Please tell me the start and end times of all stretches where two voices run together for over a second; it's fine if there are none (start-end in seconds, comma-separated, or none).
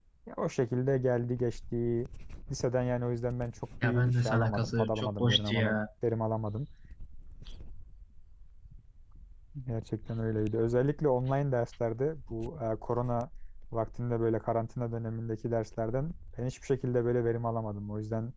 3.8-5.8